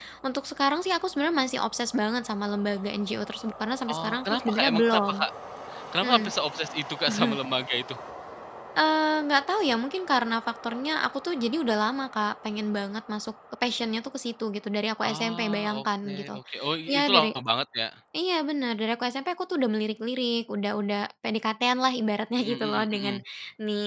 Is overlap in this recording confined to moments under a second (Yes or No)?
No